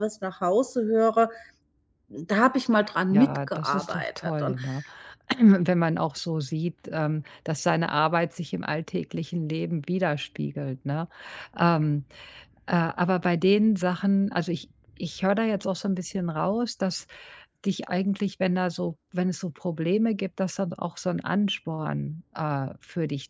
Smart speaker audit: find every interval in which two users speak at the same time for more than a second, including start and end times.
3.1-4.6

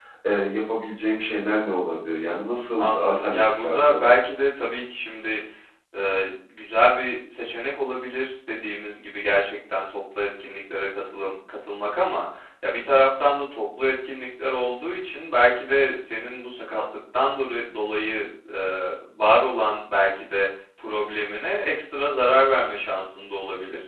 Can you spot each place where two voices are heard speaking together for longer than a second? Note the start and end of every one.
2.8-4.1

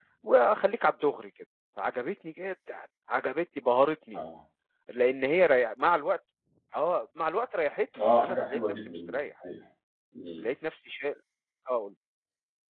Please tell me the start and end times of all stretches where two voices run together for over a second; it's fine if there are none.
8.0-9.2

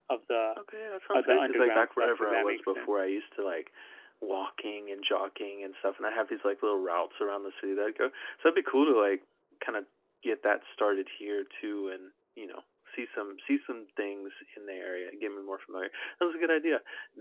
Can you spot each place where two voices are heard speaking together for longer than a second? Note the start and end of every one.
1.1-3.0

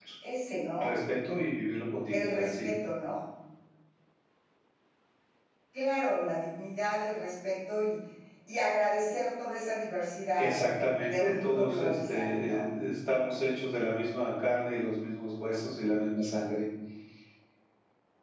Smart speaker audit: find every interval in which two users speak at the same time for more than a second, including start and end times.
11.2-12.6

